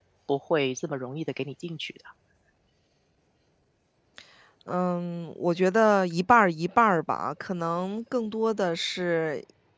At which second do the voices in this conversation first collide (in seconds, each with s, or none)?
none